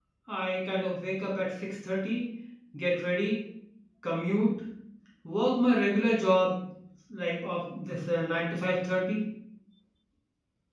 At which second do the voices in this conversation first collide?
none

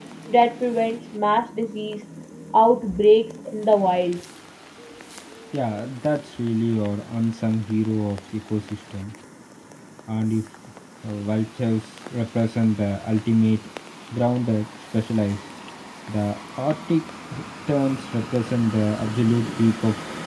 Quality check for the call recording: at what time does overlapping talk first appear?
none

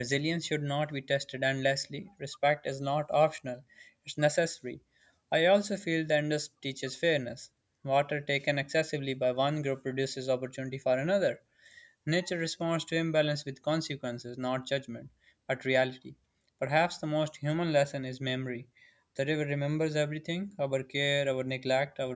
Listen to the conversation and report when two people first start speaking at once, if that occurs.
none

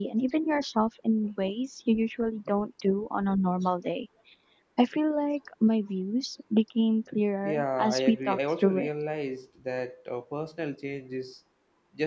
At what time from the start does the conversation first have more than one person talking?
7 s

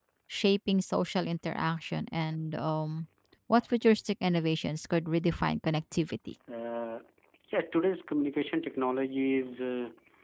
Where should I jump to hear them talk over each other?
none

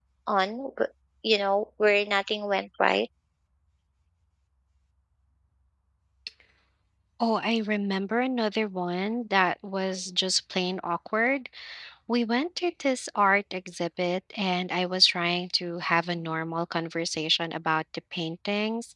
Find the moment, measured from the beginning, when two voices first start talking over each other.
none

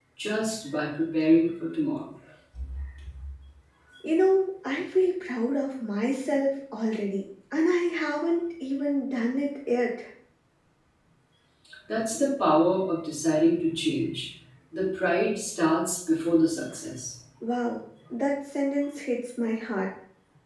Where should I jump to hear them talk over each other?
none

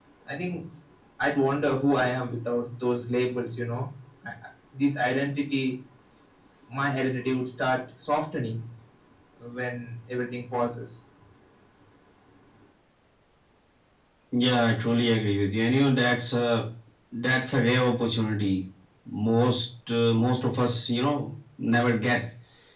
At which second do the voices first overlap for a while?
none

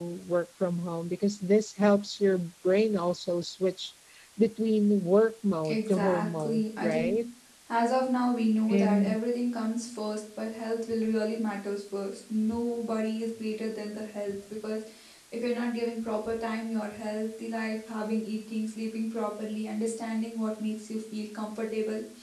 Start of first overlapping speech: 6 s

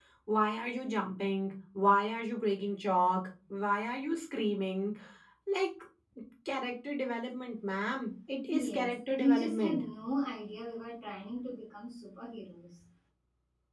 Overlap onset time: 8 s

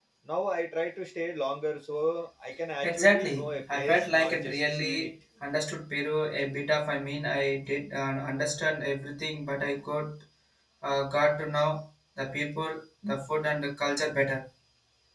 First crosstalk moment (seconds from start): 3 s

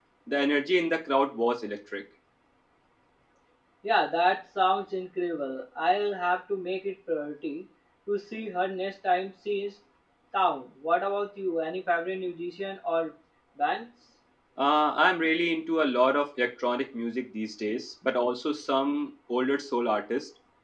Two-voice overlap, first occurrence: none

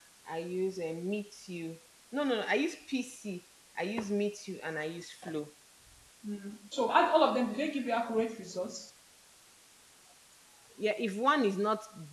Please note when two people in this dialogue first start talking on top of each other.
none

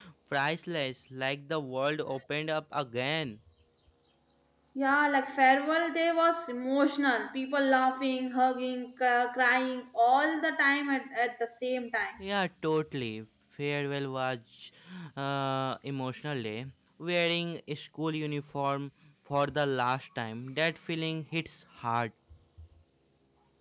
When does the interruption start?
none

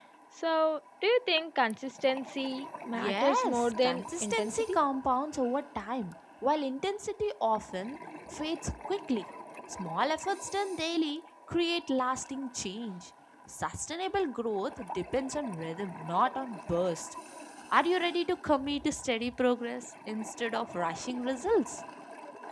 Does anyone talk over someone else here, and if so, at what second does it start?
3 s

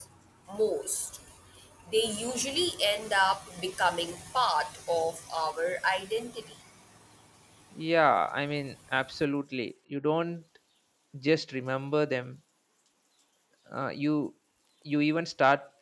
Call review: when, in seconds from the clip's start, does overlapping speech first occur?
none

